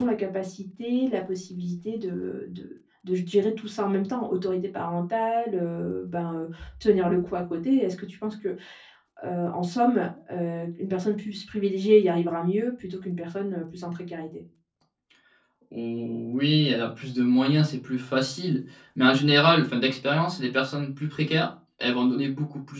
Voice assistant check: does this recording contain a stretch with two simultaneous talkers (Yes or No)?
No